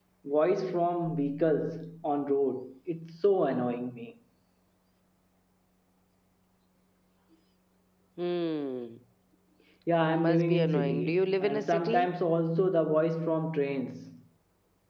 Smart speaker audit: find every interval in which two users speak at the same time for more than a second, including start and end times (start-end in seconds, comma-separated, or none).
10.0-12.1